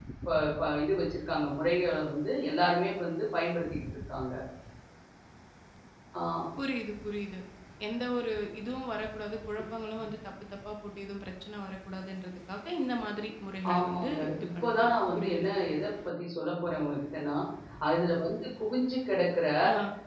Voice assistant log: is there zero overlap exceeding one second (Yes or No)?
No